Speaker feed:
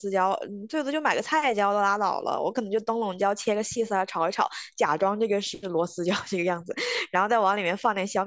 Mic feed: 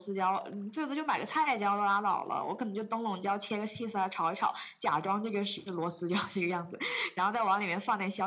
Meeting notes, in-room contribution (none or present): none